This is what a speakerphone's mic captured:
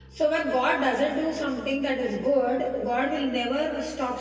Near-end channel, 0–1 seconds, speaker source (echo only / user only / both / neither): user only